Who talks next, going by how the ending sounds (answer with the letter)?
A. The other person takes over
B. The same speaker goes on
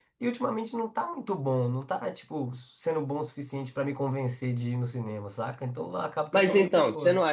A